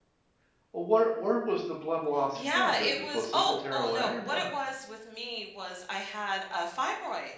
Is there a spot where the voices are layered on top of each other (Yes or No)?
Yes